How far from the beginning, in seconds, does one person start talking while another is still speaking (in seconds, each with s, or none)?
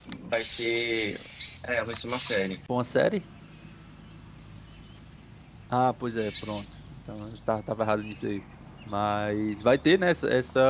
none